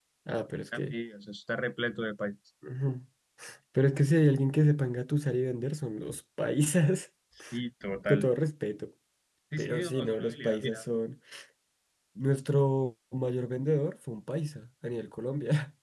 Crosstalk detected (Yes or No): Yes